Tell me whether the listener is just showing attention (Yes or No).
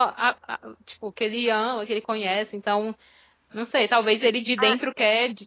Yes